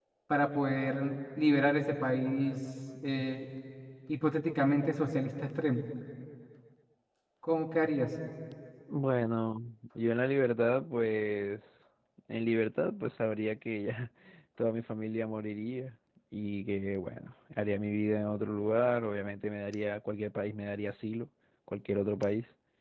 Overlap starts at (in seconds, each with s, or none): none